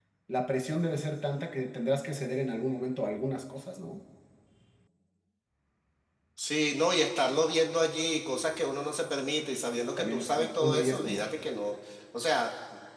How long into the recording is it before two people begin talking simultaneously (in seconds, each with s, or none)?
10.0 s